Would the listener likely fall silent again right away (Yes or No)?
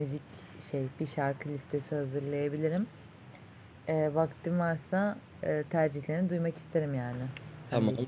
No